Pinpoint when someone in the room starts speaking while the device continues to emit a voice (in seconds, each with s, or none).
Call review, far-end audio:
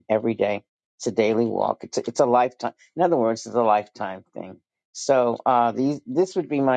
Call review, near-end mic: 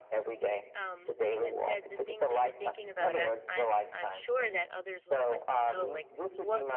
0.7 s